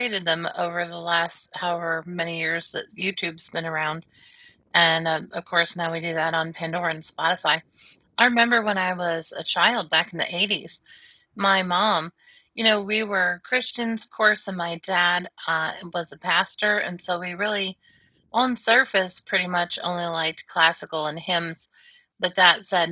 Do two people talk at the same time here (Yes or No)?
No